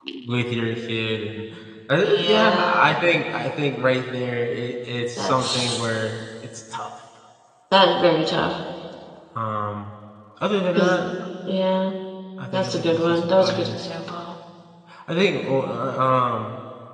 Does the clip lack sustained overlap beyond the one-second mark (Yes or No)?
No